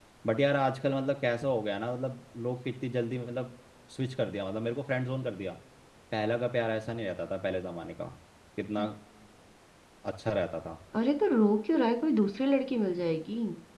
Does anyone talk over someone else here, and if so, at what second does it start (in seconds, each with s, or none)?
none